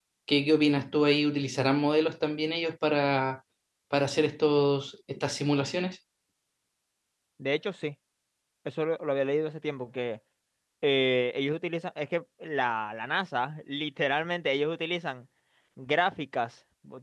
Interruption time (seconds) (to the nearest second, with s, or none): none